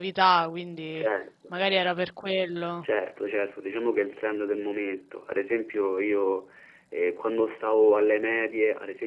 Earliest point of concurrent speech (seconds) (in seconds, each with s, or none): none